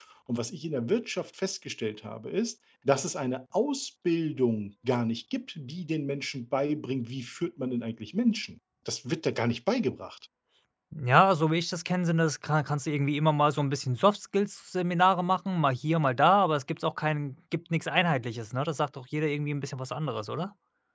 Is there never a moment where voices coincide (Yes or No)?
Yes